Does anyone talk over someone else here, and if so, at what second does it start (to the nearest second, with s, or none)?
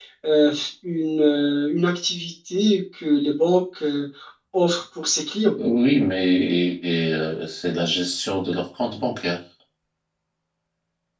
none